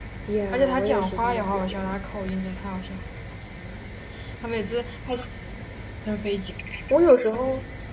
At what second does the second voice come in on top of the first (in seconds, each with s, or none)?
0.5 s